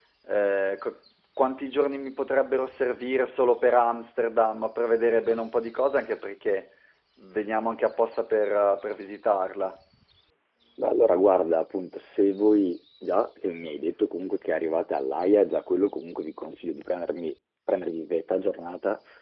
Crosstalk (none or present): none